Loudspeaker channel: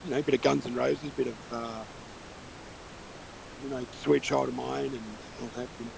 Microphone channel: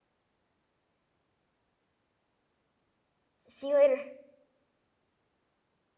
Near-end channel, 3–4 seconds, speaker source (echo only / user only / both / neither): user only